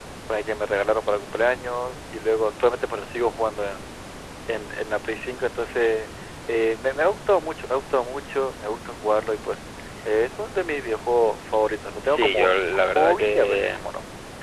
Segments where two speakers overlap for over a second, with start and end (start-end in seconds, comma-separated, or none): 12.0-13.9